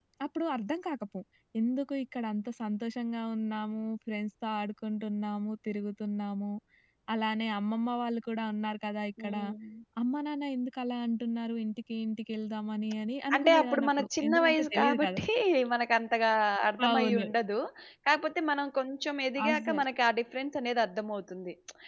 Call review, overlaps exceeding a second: present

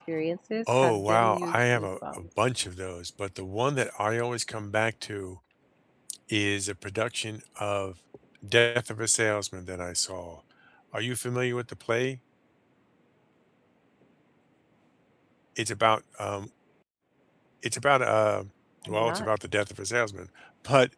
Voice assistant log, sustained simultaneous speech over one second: present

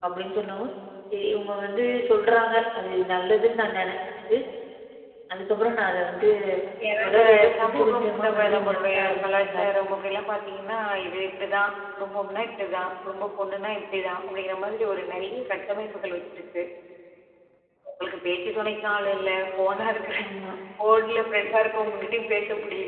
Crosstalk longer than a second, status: present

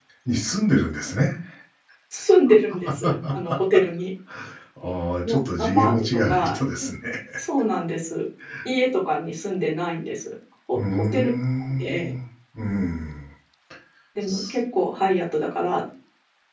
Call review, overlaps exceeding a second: present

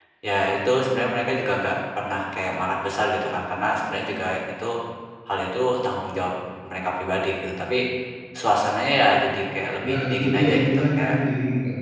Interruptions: present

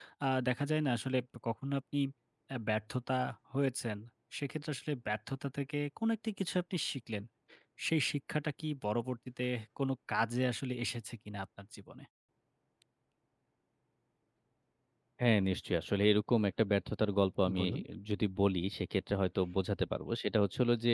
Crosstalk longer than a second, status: none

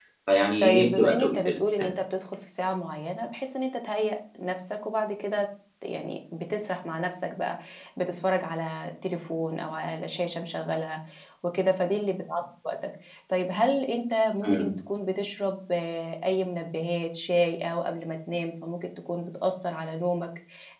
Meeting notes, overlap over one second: present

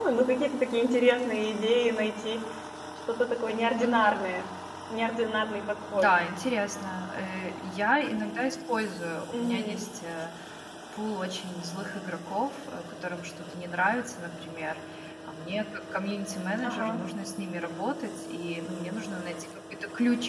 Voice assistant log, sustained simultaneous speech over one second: none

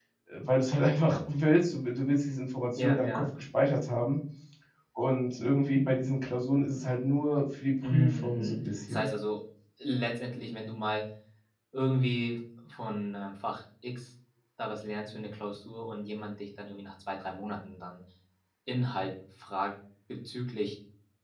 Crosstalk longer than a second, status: present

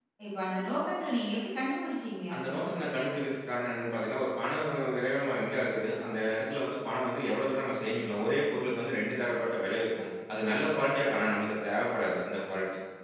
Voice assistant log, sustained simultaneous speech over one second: none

